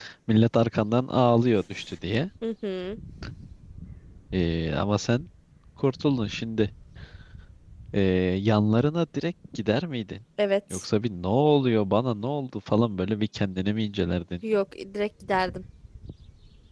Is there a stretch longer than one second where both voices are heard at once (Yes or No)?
No